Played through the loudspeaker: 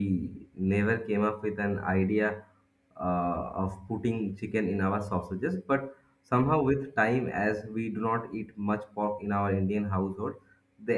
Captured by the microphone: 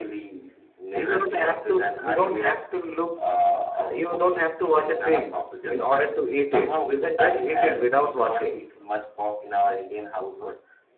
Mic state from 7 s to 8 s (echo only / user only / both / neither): both